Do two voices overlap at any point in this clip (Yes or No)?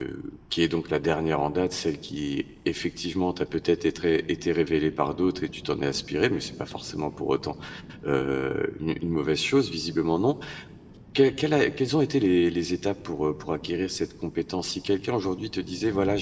No